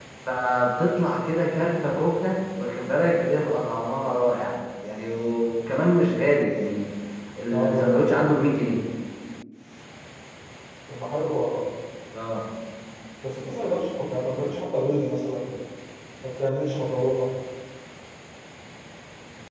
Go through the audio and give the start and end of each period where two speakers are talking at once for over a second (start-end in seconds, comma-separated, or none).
7.5-8.8